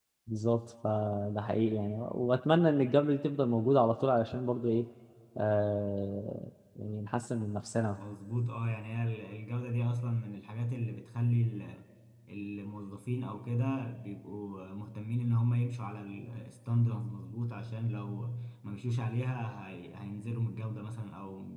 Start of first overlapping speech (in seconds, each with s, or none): none